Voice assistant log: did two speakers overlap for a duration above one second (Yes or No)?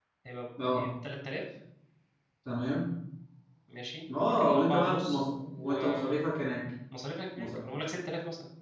Yes